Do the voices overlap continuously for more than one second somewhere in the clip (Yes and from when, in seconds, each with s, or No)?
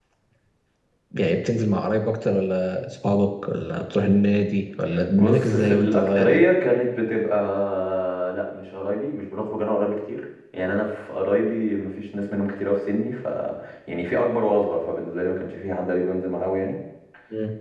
Yes, from 5.2 s